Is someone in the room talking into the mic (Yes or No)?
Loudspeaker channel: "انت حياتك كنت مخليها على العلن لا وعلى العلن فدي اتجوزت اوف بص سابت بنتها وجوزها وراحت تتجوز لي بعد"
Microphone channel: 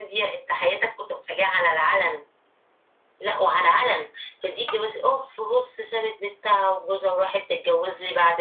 No